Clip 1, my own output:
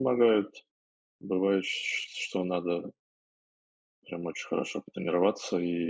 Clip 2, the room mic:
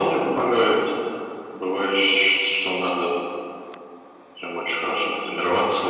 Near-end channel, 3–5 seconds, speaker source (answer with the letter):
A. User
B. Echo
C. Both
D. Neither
B